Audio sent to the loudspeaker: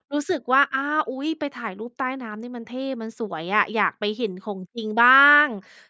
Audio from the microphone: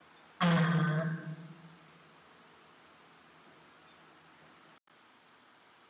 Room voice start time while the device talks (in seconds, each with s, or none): 0.4 s